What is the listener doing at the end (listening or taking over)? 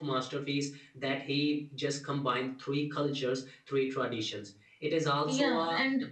taking over